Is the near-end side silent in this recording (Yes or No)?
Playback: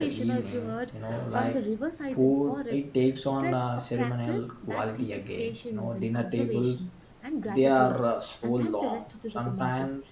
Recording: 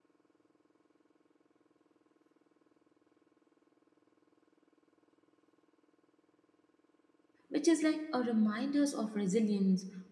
No